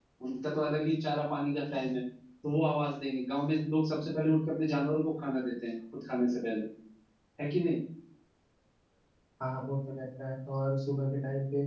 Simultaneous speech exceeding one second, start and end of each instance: none

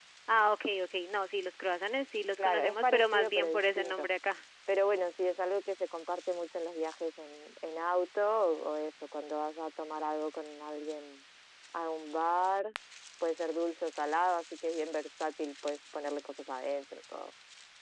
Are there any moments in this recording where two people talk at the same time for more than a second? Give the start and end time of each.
2.4-4.1

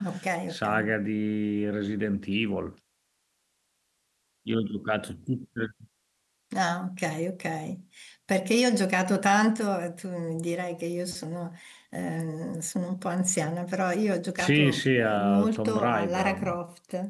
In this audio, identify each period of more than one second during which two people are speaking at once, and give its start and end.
14.4-16.4

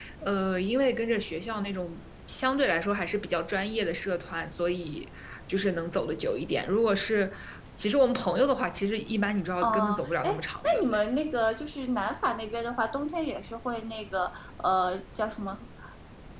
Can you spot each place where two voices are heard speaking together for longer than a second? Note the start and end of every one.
9.6-11.0

